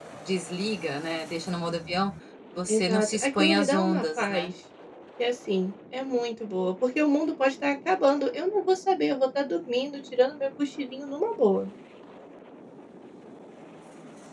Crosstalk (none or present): present